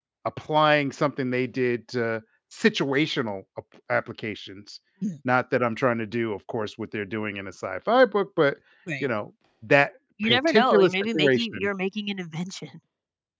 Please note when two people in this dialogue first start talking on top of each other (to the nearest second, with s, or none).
10 s